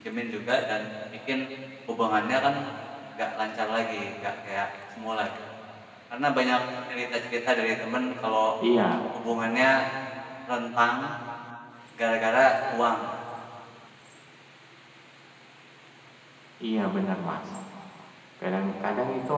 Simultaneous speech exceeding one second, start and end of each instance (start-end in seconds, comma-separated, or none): none